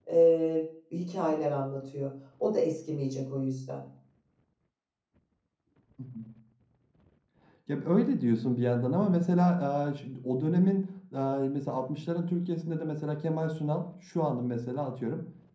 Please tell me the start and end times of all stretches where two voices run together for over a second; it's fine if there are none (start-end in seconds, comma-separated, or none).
none